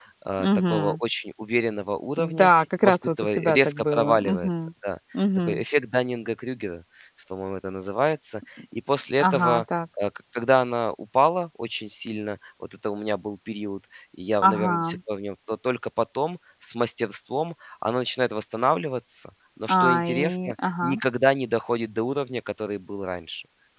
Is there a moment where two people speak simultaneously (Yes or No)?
Yes